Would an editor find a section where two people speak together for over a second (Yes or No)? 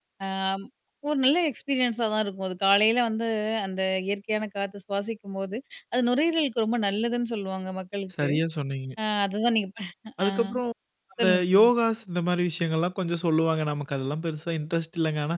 No